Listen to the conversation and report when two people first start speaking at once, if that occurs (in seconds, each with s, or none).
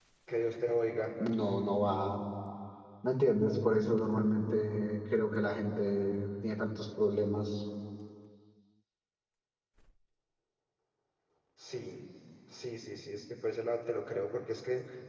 none